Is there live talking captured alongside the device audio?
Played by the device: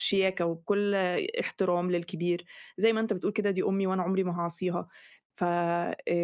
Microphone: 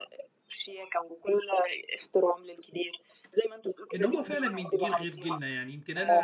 Yes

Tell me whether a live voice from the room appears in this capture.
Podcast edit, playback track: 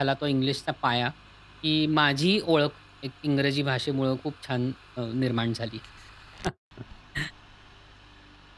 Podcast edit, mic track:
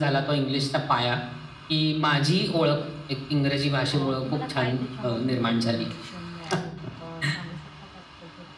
Yes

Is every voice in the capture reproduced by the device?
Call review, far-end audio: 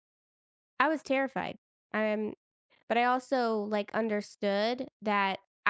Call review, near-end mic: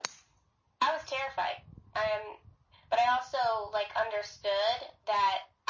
Yes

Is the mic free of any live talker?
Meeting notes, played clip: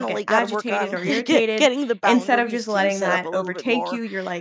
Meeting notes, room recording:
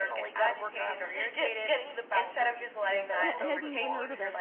No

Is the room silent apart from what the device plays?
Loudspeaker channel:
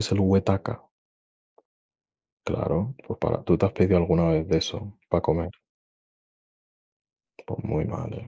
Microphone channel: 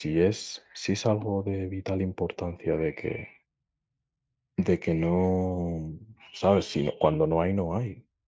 No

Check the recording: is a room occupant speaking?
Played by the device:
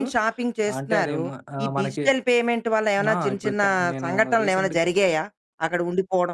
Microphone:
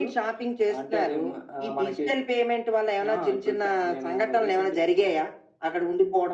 No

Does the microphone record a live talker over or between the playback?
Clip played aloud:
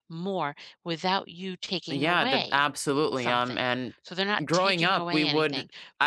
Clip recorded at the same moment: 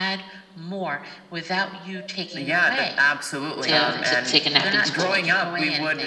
Yes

